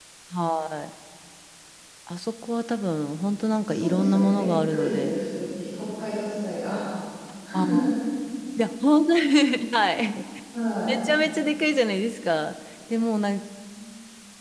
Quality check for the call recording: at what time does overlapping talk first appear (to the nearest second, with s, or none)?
4 s